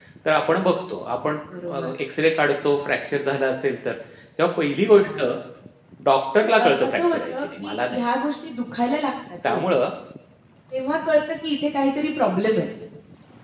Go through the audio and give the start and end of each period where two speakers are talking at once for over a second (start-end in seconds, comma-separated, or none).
6.4-8.0